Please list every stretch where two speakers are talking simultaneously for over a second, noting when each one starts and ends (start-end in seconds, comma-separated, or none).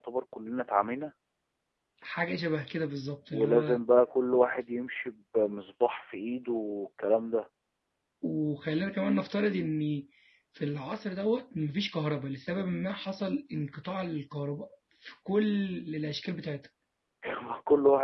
none